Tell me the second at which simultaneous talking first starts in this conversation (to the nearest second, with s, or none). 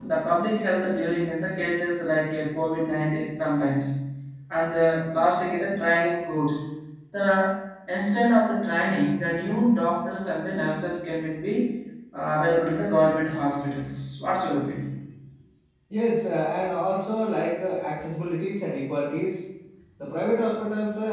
none